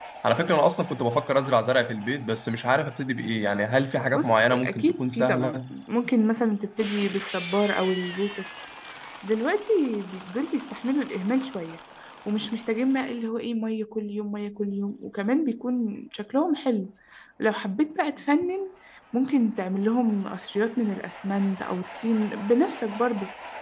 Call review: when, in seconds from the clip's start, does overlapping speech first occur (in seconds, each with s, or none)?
4.1 s